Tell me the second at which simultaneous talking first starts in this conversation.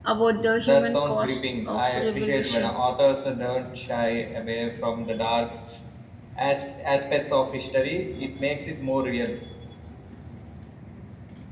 0.6 s

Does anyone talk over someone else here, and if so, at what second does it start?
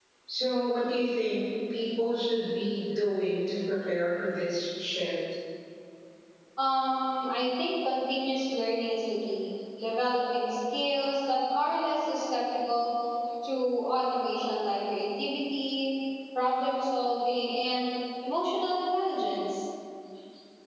none

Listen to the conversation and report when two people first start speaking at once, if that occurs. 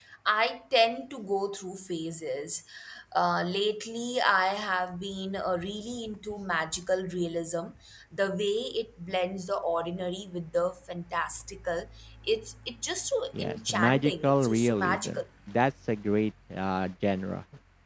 13.3 s

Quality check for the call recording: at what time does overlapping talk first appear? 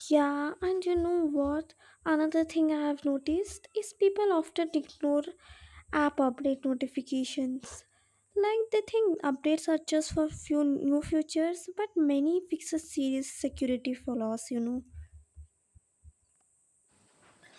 none

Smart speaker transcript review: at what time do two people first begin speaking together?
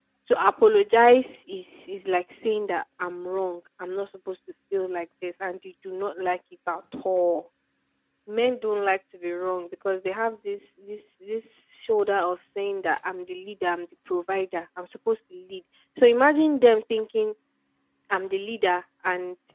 none

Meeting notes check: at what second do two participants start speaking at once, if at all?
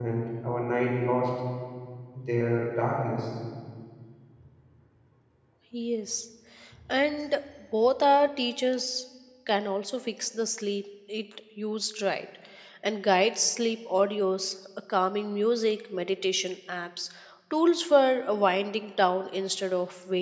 none

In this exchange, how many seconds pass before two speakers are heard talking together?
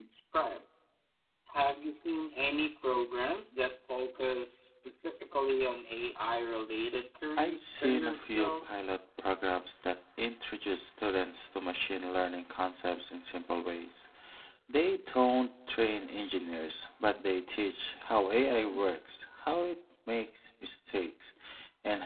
7.4 s

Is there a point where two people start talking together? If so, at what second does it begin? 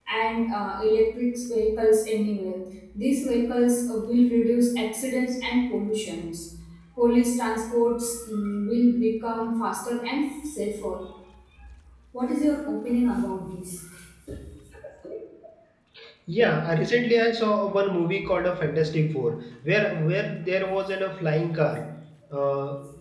none

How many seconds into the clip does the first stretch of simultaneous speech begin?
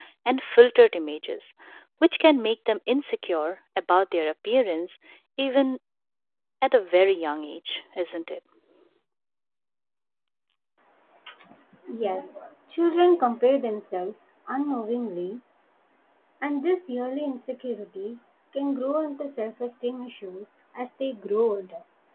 none

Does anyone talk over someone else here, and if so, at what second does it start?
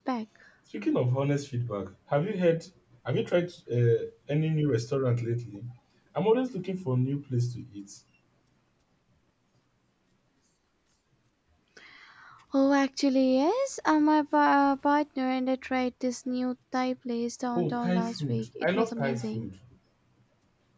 17.6 s

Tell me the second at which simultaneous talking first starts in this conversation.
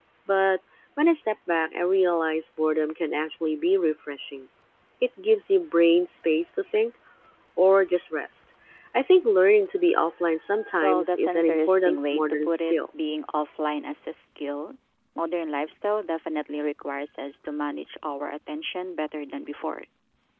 10.8 s

